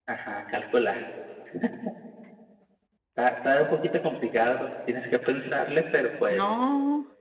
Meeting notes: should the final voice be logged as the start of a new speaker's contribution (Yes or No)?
Yes